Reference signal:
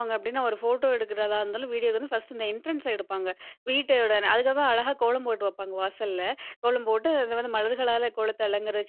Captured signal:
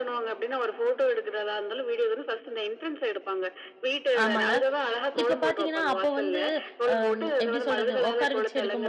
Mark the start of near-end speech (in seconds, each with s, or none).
4.2 s